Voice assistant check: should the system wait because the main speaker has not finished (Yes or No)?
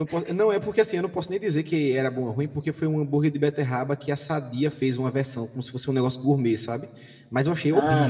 No